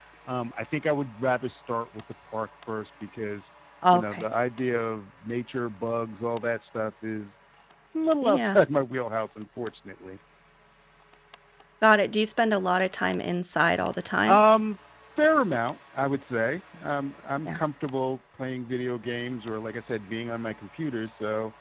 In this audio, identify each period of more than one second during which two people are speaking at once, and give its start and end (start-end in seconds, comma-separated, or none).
none